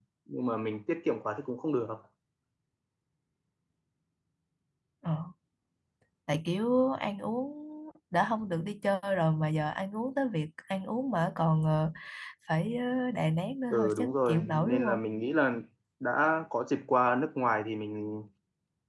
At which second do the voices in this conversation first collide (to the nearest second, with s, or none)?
14 s